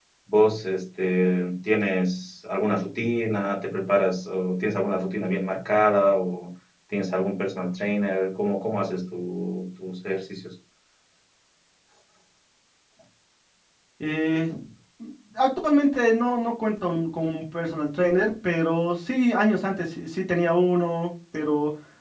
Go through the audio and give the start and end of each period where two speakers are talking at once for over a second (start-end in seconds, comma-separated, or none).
none